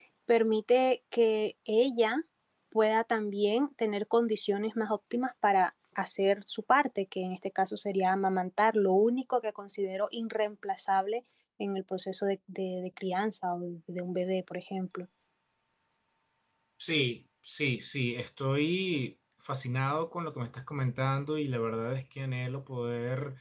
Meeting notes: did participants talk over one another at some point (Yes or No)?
No